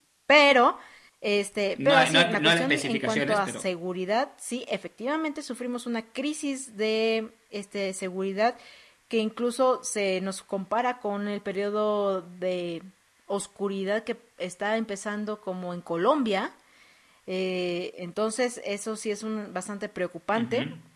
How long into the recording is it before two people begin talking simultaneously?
1.8 s

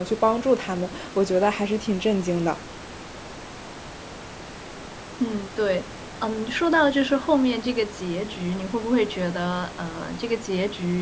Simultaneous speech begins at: none

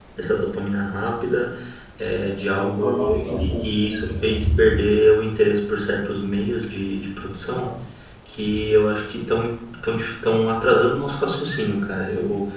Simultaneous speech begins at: 2.3 s

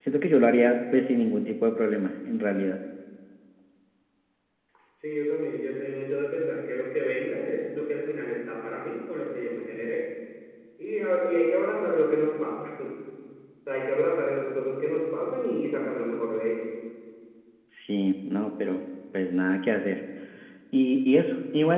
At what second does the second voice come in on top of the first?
none

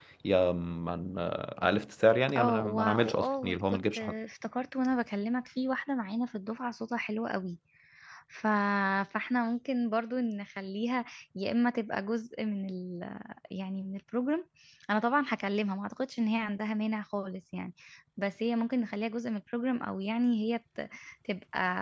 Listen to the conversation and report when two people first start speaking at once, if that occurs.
2.3 s

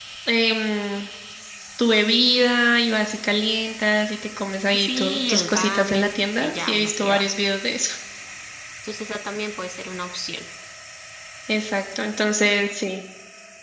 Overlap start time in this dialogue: 4.7 s

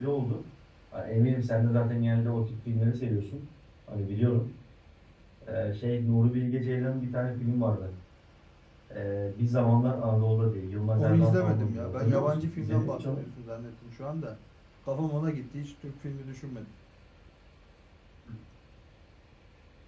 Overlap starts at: 11.0 s

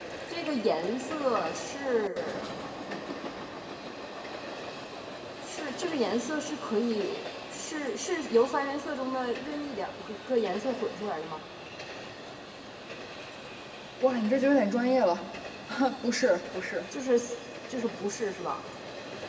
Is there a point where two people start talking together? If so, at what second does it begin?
none

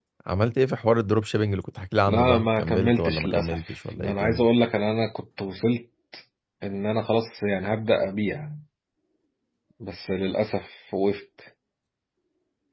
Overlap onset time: 2.1 s

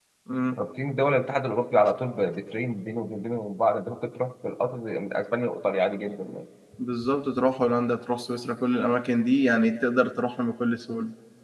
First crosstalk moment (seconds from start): none

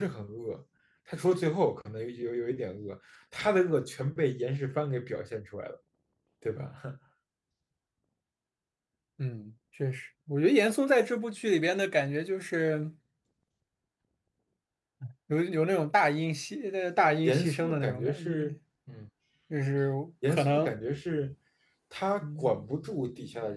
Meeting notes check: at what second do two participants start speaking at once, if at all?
17.2 s

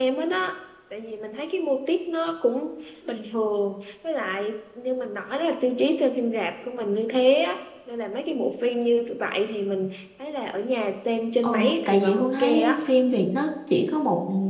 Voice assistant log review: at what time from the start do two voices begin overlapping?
11.4 s

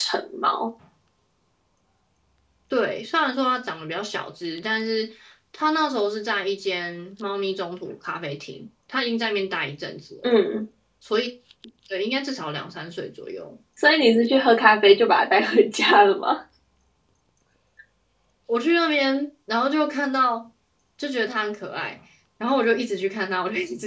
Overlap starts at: none

